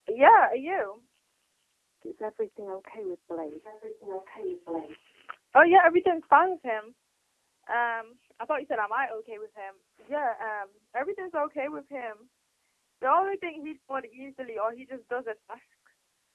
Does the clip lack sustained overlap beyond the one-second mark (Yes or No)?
Yes